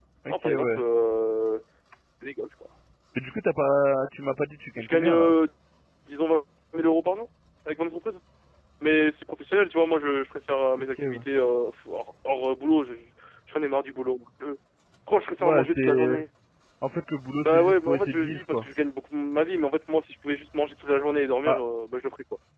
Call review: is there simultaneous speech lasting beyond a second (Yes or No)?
Yes